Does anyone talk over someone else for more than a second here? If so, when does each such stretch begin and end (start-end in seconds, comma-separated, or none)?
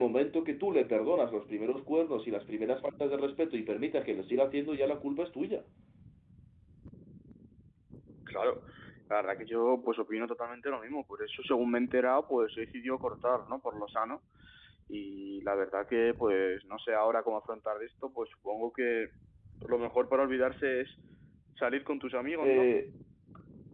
none